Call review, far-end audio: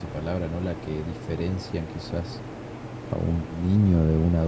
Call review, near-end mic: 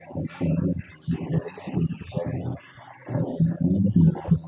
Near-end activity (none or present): none